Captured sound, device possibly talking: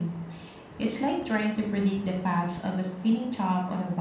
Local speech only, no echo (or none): none